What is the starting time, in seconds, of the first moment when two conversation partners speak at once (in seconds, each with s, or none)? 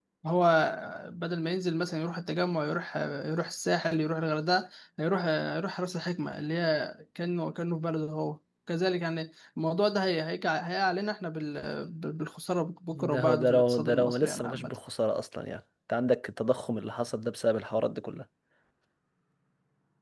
12.9 s